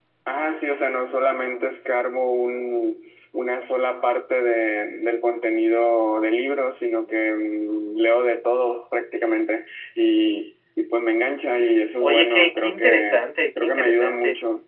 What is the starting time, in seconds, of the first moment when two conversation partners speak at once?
12.0 s

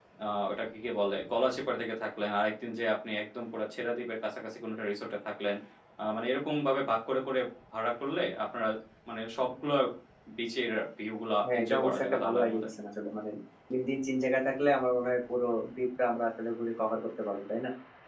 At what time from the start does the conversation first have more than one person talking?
11.4 s

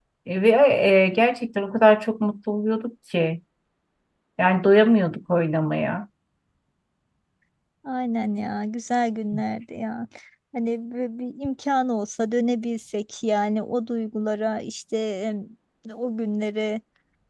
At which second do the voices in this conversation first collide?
none

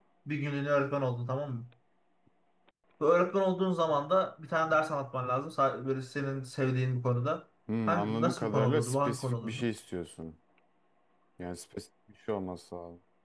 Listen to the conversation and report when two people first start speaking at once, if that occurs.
7.7 s

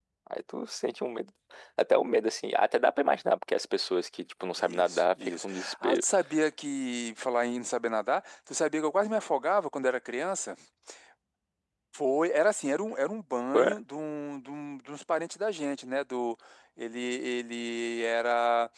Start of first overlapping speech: 4.6 s

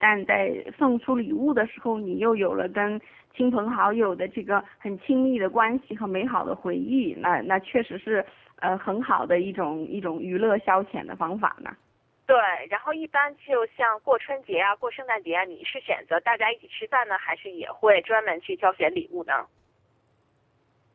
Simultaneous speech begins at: none

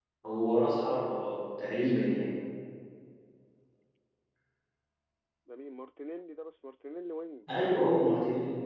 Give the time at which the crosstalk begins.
none

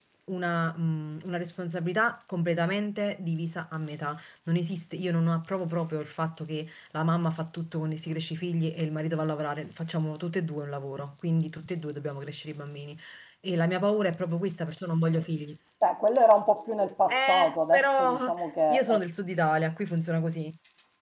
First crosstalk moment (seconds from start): 17.1 s

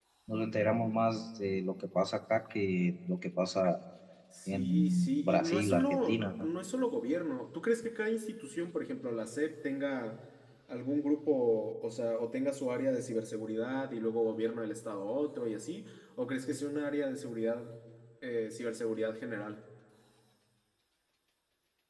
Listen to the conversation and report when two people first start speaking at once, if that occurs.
4.5 s

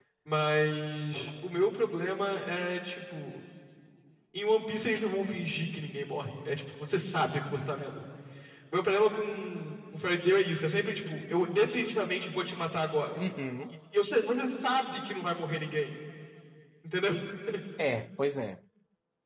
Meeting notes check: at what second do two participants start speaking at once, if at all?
none

